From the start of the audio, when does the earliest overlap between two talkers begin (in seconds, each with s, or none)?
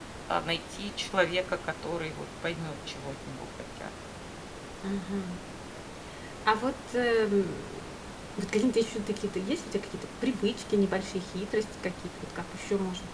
none